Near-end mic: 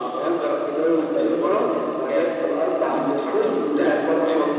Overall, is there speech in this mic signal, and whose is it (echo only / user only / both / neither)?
both